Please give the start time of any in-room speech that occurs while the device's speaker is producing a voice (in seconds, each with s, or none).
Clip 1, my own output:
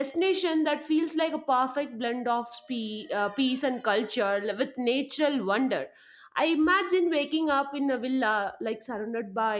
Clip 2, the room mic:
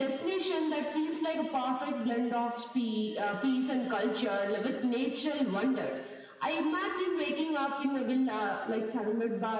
none